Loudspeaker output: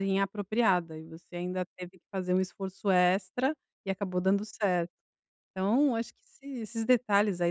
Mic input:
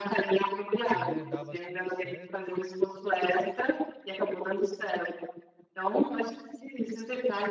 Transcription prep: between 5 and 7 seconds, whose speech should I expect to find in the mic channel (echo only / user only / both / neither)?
echo only